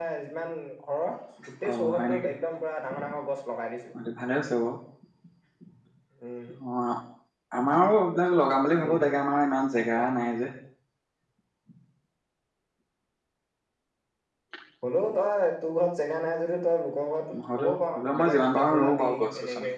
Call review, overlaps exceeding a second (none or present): present